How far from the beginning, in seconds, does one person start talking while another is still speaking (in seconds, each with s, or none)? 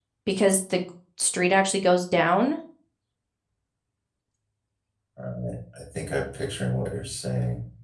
none